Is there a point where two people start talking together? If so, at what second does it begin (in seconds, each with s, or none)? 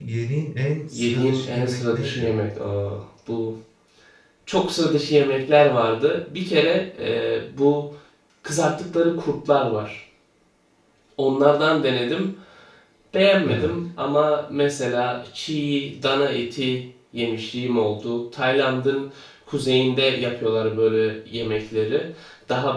0.9 s